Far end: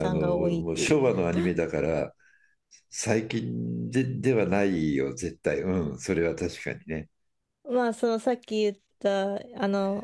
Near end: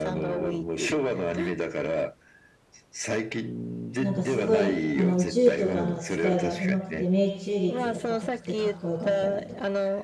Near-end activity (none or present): present